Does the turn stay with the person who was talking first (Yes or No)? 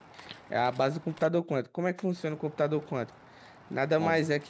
Yes